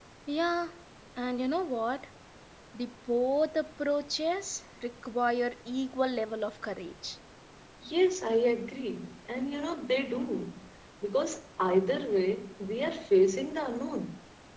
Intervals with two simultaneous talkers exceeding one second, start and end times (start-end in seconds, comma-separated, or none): none